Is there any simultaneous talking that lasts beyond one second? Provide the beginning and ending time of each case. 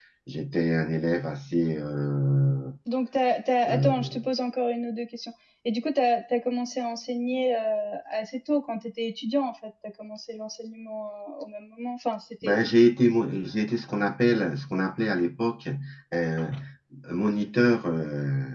none

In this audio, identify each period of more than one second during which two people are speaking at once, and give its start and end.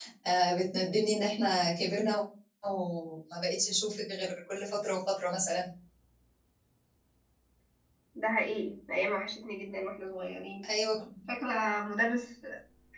none

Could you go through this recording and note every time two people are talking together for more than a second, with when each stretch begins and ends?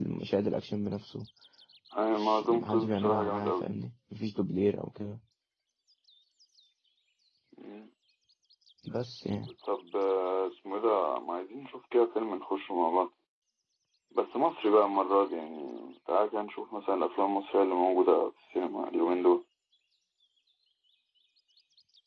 2.1-3.6

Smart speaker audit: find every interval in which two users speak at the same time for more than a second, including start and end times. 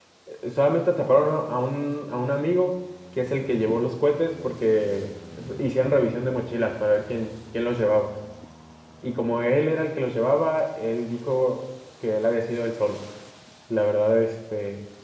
none

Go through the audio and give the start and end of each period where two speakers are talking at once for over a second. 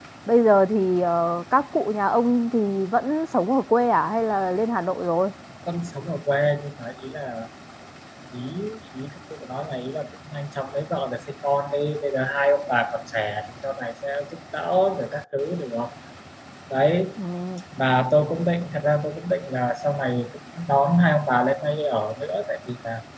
none

